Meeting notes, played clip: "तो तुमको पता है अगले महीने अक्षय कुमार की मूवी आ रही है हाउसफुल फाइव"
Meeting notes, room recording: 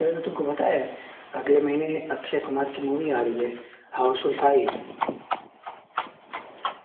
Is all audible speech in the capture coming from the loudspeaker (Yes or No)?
Yes